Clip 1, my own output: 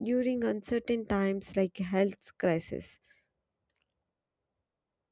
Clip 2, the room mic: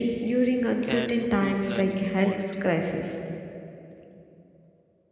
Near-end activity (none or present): present